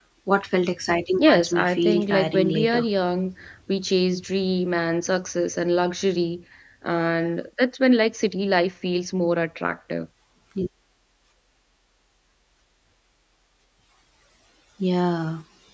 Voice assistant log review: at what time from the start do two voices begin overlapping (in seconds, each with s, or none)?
1.2 s